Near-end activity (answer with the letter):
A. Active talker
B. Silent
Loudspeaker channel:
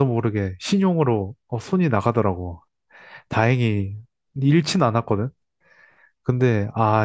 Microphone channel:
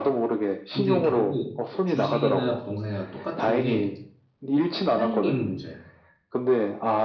A